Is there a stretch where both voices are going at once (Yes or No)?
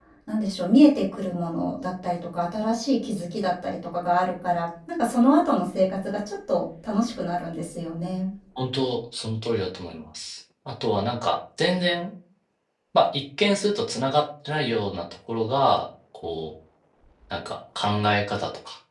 No